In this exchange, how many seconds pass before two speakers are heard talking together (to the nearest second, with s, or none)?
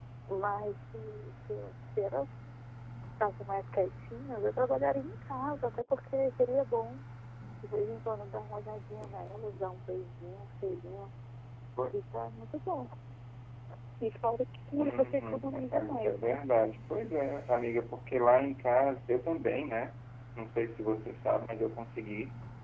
15 s